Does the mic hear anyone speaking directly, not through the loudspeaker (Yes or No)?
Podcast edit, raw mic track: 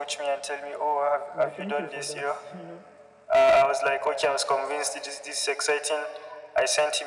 Yes